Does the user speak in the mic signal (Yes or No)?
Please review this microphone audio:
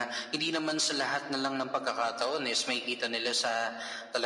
No